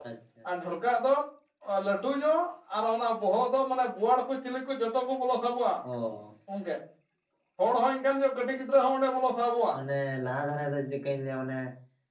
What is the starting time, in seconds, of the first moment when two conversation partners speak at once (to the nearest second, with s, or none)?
none